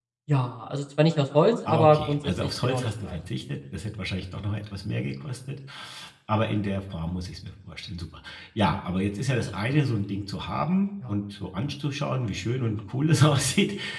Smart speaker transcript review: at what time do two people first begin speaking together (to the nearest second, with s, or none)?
2 s